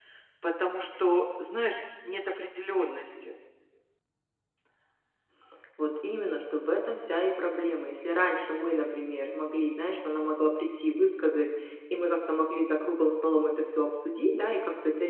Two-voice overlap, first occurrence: none

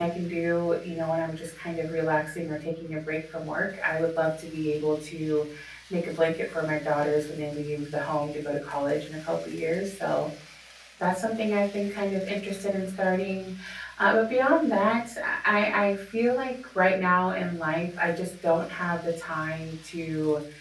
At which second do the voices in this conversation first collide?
none

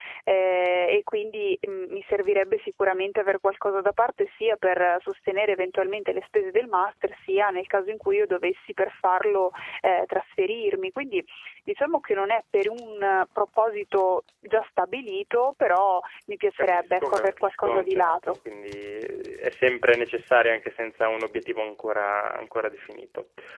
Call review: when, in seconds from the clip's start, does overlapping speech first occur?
16.6 s

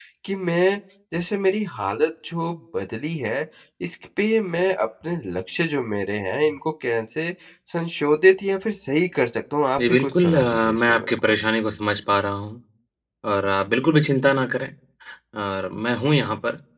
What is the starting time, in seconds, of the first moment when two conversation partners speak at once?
9.8 s

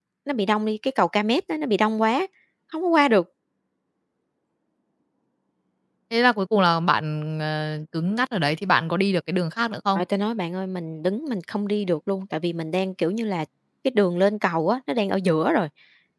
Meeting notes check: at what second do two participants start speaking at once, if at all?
none

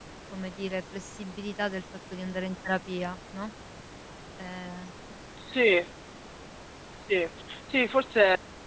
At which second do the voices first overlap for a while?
none

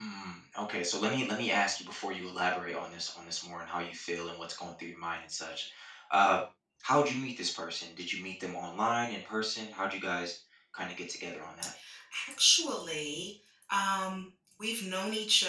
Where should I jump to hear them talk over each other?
none

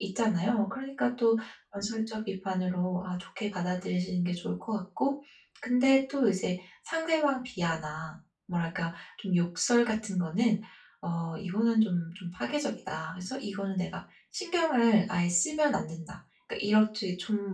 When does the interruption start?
none

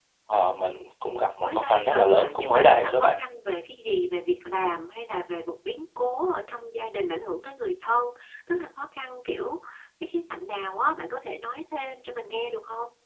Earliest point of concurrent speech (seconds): 1.4 s

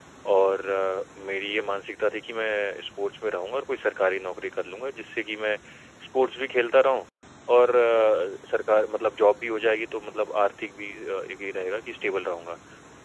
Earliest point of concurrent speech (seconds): none

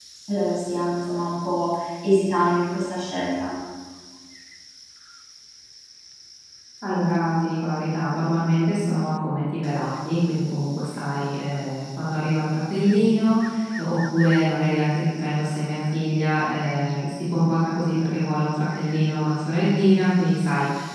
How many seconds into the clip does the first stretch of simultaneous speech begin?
none

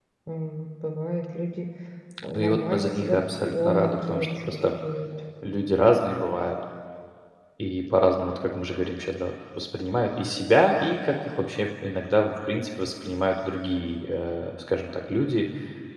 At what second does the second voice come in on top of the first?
2.2 s

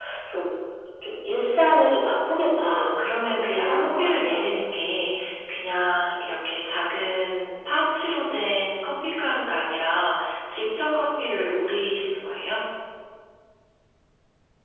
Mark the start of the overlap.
2.6 s

